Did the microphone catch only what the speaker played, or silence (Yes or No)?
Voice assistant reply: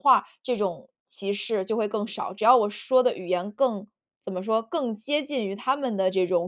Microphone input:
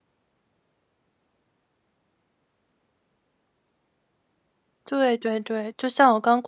No